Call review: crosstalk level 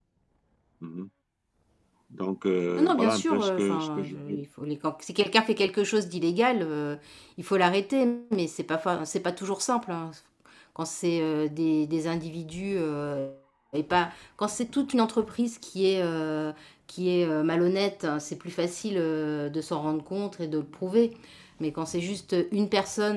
present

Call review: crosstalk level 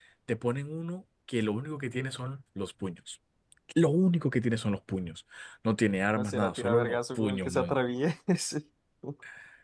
present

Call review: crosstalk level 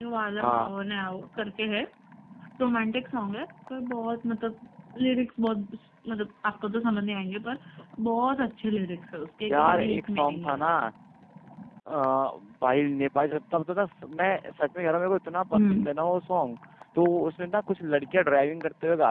present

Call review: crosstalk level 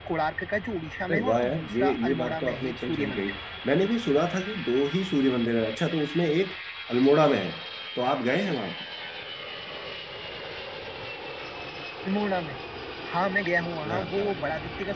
present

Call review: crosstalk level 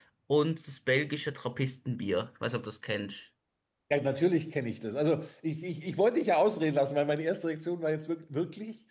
none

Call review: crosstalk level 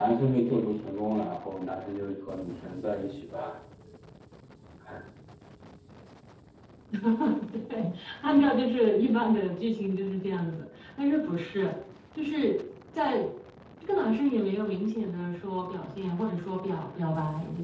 none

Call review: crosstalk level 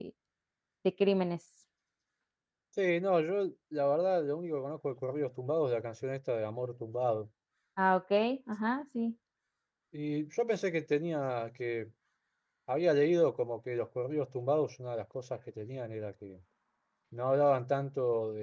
none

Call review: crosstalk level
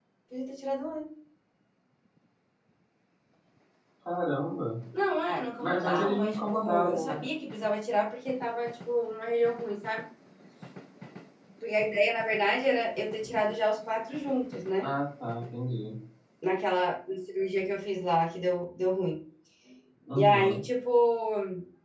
present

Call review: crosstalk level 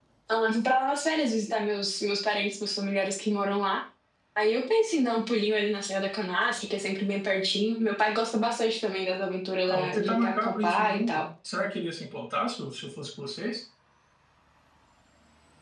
present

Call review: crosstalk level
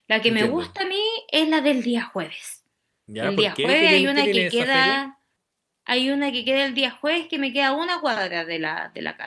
present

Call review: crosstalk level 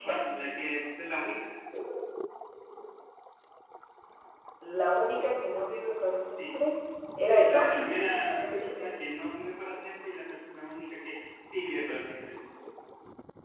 present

